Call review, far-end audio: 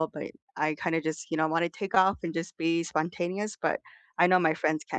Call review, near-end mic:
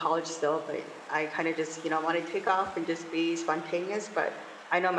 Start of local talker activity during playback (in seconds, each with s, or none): none